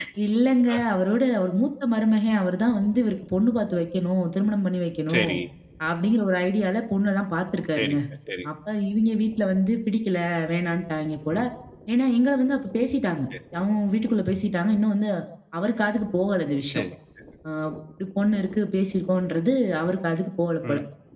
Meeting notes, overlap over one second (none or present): none